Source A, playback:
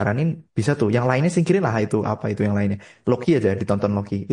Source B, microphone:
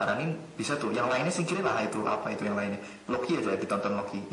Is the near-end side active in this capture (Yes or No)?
No